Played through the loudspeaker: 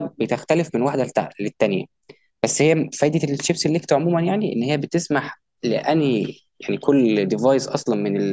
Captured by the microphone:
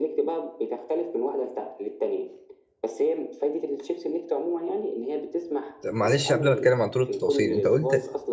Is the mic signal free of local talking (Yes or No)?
No